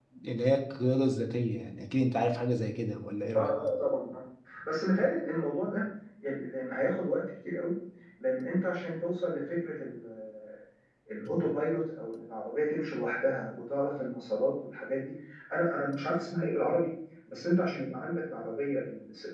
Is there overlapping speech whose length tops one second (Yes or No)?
No